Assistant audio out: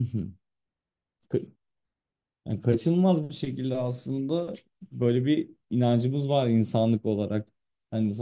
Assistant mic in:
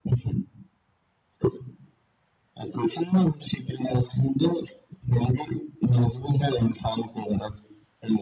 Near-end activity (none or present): none